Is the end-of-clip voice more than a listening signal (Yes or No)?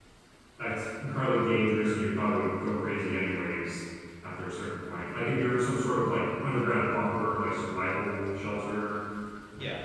Yes